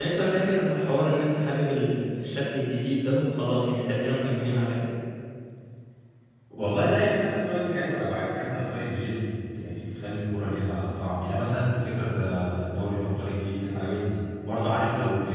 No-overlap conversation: Yes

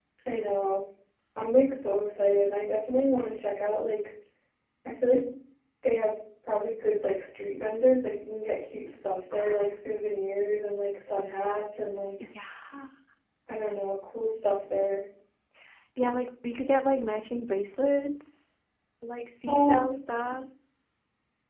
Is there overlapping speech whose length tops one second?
No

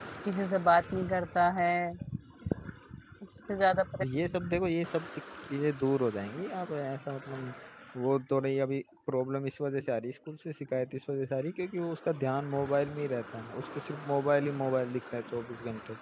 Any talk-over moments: No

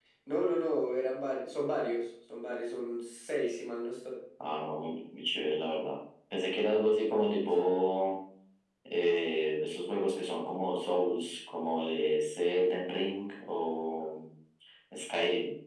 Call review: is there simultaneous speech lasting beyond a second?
No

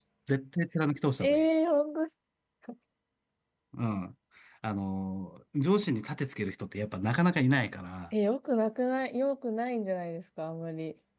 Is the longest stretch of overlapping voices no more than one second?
Yes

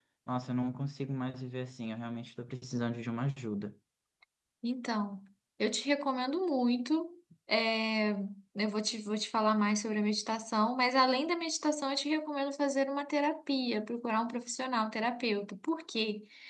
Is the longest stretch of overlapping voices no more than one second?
Yes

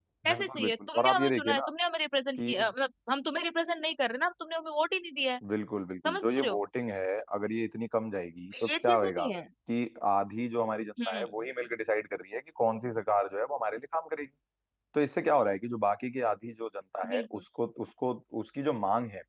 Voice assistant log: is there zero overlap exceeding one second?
No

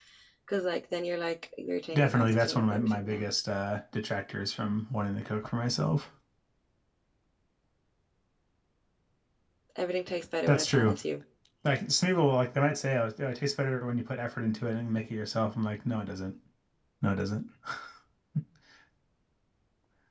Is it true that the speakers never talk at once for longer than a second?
No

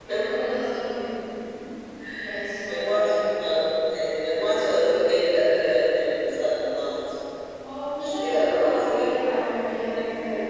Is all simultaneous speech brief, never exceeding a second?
No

